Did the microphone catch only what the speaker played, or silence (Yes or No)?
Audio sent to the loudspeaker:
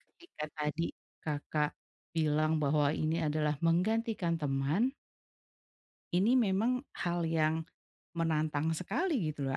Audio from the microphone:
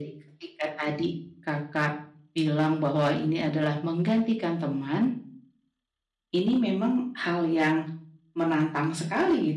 Yes